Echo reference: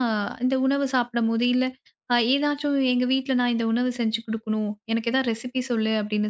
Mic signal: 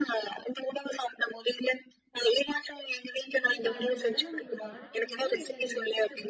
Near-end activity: present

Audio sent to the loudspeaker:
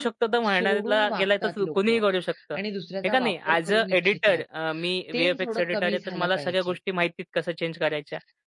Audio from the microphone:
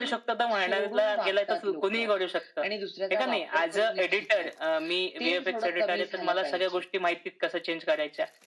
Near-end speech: none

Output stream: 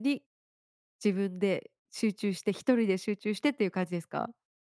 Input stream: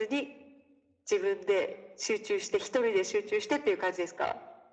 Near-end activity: none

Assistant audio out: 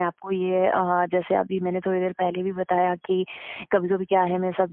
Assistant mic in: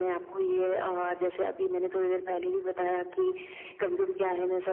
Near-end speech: none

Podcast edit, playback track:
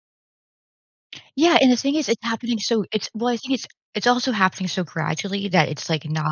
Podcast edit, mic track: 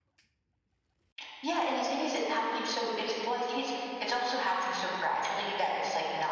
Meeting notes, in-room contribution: none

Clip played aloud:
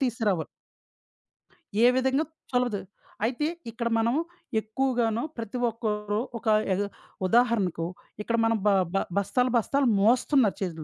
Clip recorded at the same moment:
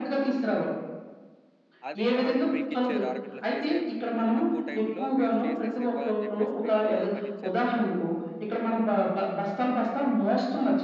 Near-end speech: present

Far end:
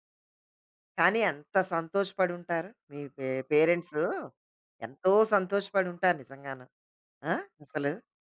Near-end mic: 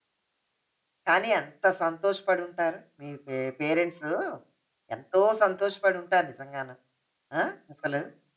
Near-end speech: none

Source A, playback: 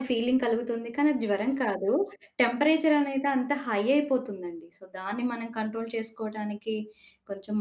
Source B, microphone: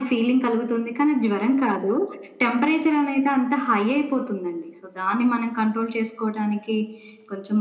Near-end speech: none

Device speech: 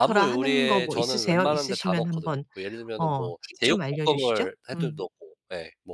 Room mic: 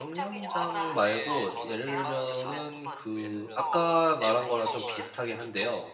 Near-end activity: present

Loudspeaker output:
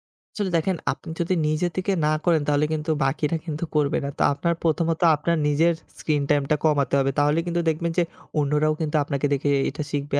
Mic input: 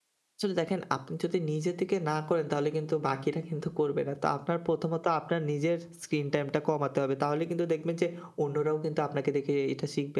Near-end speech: none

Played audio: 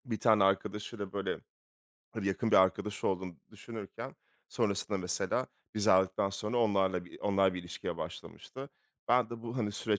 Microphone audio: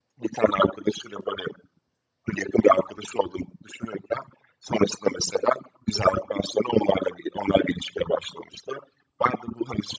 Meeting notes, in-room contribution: none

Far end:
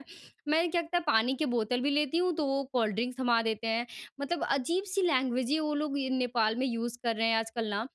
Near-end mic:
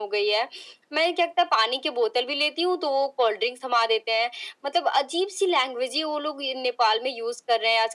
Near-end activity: none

